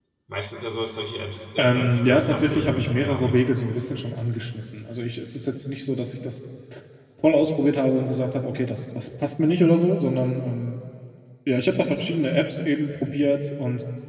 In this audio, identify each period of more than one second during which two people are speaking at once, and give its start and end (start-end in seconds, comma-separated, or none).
1.6-3.4